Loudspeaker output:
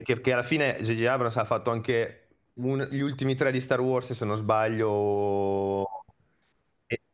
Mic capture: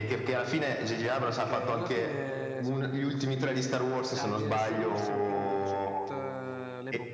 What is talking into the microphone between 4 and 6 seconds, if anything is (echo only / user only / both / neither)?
both